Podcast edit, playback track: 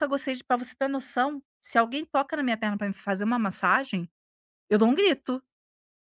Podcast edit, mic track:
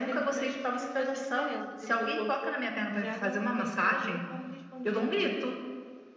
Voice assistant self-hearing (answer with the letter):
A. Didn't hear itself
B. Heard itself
B